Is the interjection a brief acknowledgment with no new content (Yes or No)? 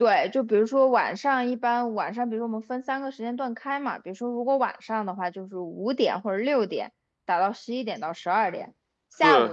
Yes